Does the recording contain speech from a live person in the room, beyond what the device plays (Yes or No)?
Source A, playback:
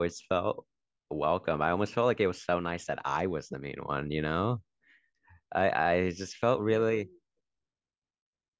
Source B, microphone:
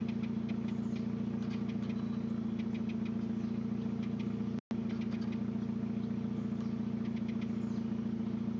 No